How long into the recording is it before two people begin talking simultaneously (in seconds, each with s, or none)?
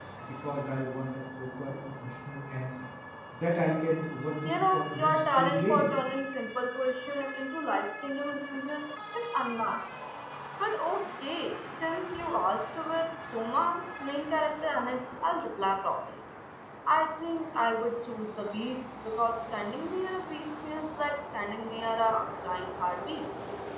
4.4 s